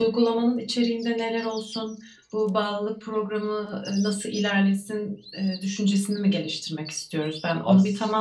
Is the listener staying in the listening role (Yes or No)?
Yes